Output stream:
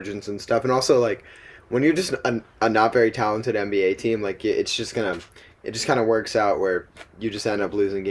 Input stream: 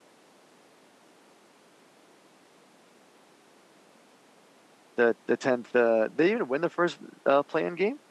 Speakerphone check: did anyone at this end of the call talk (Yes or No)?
Yes